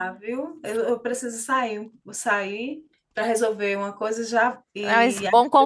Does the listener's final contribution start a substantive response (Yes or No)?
Yes